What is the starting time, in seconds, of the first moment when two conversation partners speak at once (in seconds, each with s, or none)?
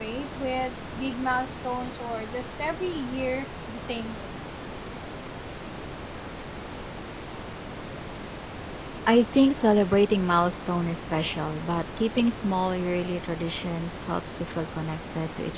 none